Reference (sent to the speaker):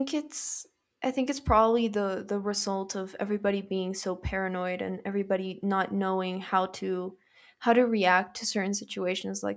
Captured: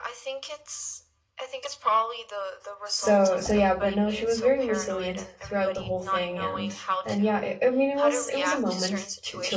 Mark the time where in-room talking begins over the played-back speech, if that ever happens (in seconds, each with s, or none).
2.9 s